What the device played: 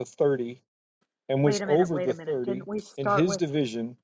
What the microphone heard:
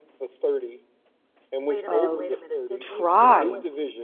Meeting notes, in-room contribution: present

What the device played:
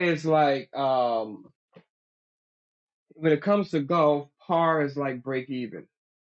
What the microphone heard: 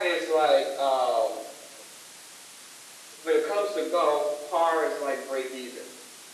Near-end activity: none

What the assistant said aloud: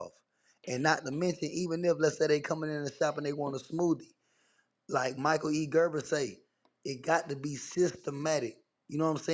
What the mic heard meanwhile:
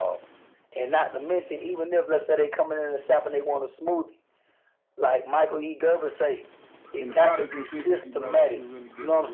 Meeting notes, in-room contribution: present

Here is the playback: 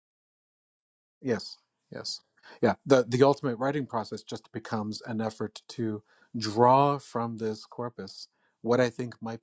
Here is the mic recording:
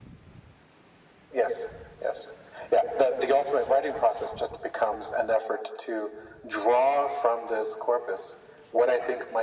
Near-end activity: none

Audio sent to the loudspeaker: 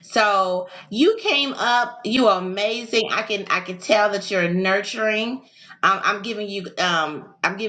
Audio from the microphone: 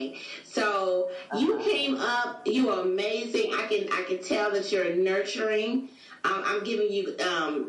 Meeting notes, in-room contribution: present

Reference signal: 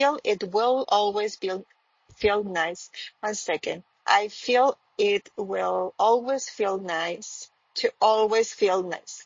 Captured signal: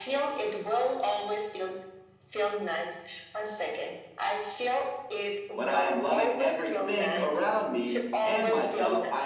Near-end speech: present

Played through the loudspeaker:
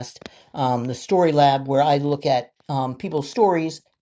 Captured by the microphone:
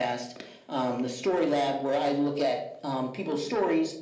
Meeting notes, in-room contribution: none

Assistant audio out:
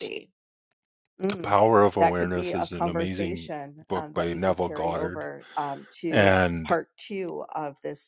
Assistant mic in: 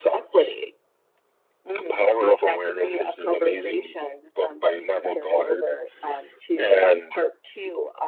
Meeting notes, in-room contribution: none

